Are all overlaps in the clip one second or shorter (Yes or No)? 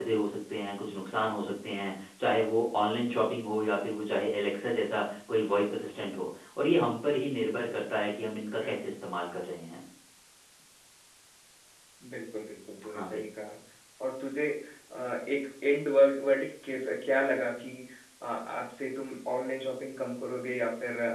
Yes